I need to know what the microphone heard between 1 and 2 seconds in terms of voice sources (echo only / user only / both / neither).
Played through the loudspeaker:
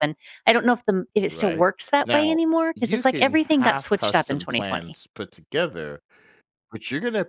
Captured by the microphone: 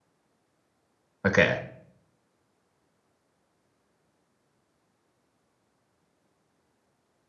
user only